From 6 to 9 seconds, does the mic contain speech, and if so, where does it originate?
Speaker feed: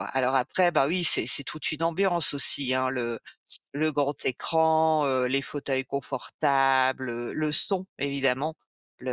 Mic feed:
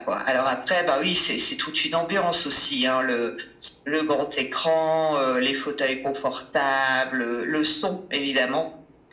echo only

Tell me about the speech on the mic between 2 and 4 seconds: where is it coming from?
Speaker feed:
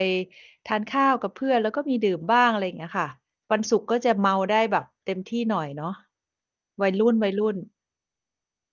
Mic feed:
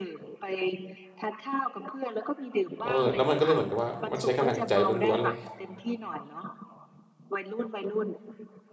both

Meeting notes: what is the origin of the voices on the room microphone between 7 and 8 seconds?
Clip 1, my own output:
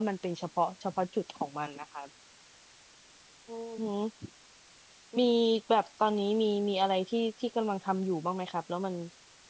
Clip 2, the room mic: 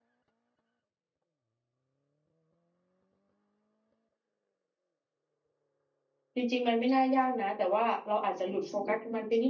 user only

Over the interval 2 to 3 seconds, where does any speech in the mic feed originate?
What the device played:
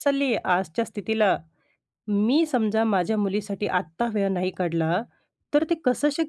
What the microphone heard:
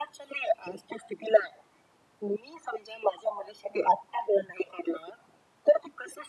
echo only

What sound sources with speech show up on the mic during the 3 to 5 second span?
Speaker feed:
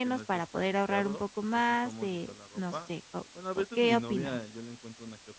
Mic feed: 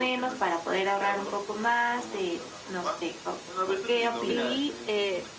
both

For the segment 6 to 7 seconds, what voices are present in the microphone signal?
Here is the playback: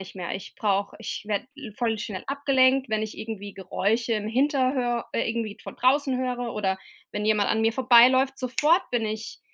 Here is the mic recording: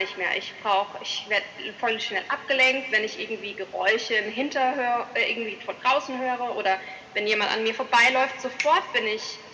echo only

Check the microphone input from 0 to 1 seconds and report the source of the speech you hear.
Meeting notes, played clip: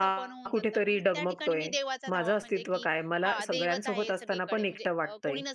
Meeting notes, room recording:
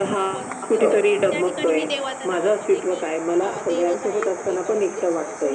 both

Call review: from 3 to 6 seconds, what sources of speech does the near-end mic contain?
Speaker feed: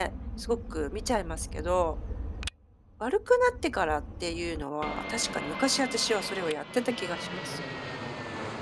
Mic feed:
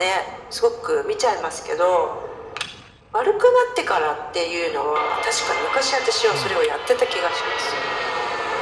echo only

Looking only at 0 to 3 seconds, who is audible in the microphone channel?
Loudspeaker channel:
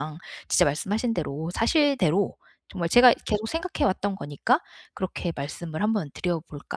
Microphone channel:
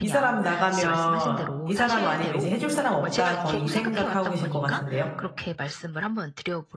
both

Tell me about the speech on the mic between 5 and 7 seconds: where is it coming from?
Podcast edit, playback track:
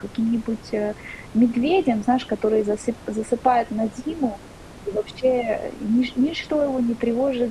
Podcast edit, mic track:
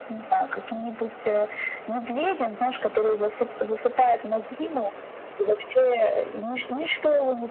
echo only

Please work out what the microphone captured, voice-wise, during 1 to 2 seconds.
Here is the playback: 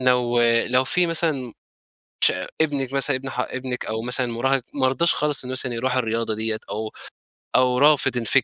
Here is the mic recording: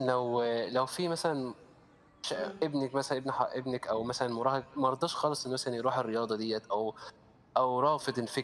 echo only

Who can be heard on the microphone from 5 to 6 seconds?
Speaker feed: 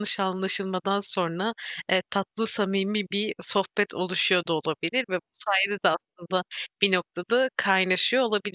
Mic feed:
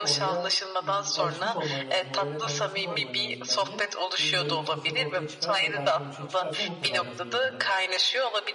both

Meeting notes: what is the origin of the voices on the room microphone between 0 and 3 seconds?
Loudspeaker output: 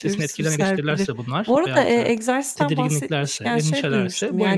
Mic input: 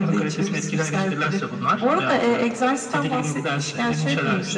echo only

